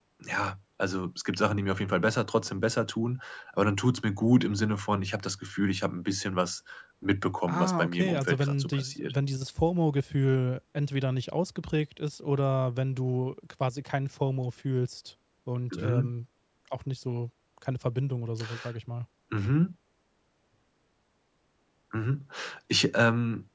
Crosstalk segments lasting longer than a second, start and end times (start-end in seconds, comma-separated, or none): 7.5-9.1